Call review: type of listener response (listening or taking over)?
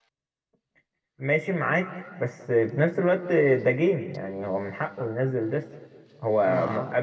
listening